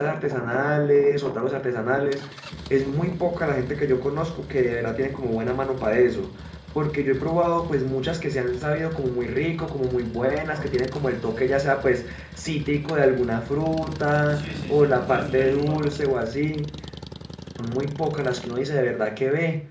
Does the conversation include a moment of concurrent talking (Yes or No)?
Yes